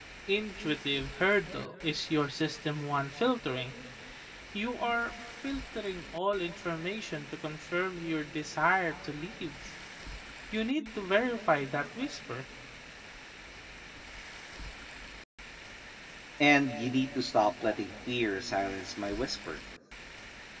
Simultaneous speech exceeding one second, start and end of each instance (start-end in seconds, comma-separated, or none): none